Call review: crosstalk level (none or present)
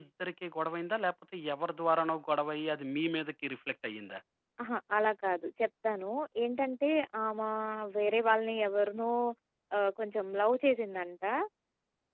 none